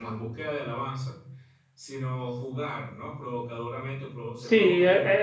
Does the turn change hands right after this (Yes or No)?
Yes